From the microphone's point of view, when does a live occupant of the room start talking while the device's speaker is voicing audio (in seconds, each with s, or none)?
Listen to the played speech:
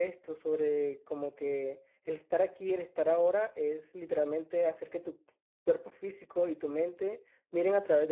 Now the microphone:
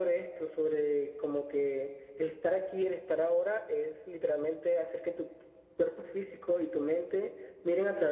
none